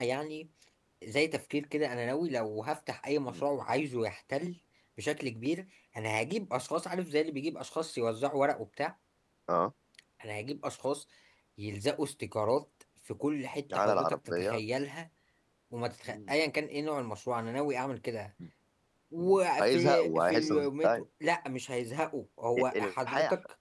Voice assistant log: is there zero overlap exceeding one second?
No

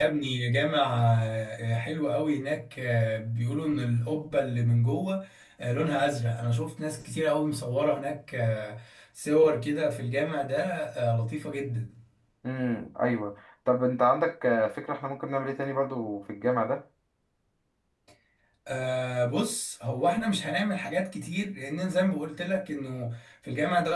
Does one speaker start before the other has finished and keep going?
No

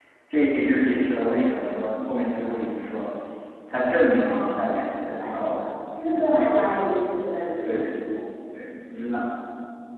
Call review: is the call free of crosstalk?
No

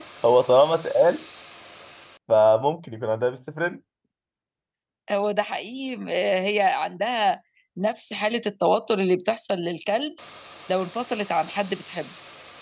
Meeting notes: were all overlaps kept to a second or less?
Yes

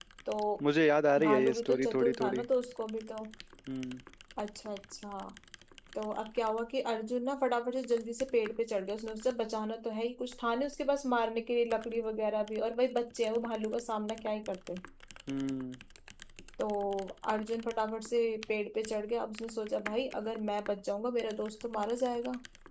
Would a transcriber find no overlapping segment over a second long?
No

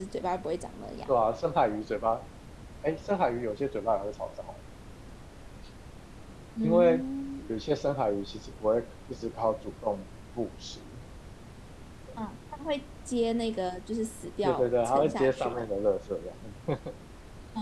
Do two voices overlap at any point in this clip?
Yes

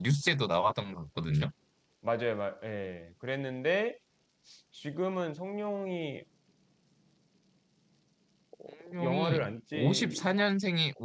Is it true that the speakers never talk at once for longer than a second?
No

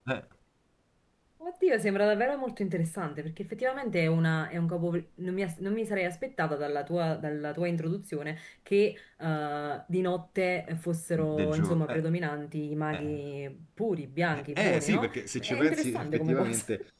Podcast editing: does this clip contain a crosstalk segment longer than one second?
Yes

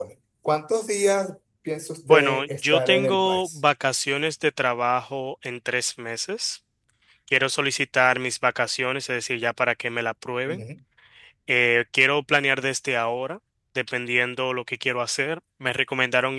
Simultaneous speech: Yes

